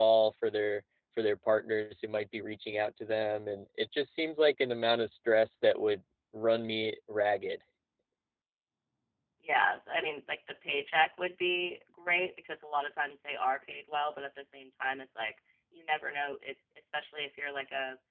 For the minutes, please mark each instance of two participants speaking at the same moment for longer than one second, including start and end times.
none

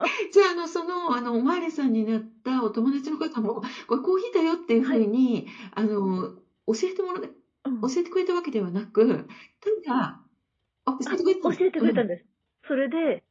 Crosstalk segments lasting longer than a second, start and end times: none

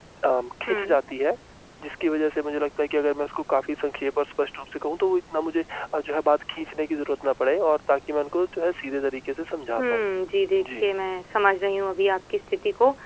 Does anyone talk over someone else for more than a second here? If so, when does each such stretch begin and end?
none

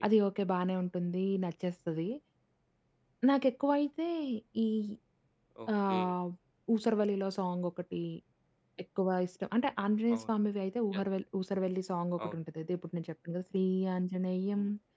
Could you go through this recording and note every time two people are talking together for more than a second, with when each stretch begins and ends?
none

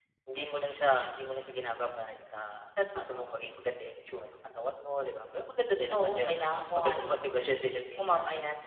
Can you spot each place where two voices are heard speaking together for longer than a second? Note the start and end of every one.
5.9-7.2

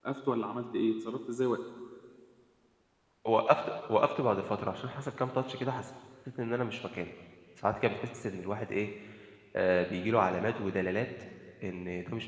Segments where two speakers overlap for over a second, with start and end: none

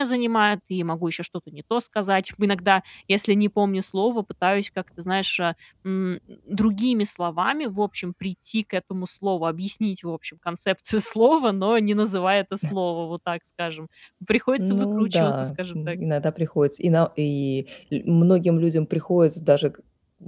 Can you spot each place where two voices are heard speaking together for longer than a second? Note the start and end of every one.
14.6-16.0

